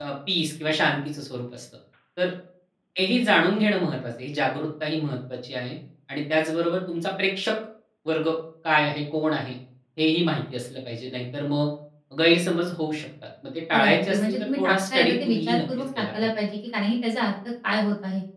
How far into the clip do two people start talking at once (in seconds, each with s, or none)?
13.7 s